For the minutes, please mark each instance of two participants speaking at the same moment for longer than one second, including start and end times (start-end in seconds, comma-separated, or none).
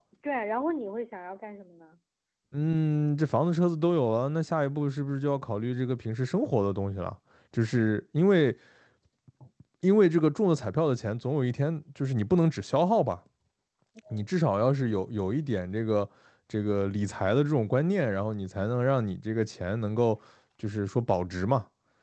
none